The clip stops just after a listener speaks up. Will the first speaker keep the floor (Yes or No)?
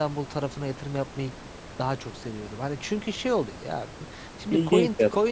Yes